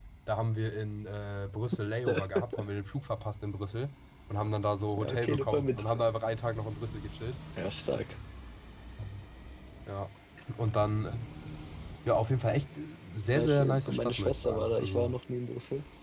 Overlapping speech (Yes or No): Yes